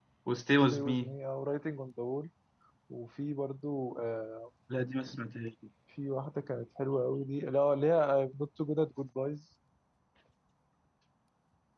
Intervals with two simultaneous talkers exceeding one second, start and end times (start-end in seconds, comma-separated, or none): none